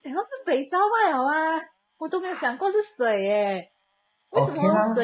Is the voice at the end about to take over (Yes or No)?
No